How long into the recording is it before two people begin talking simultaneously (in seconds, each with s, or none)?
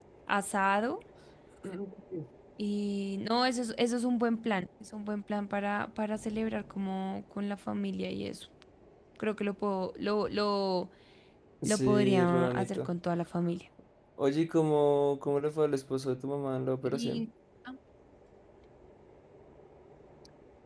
11.6 s